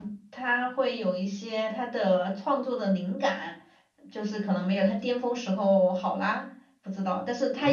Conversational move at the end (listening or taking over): taking over